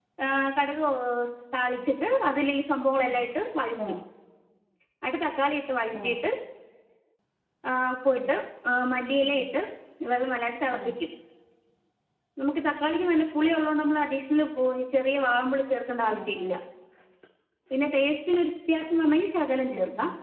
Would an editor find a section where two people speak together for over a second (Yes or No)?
No